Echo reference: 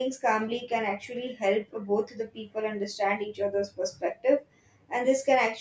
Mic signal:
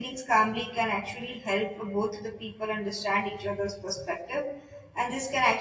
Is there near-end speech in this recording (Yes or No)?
No